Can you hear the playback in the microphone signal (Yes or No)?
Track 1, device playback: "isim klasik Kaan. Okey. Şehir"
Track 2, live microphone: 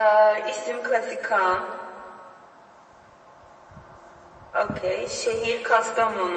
Yes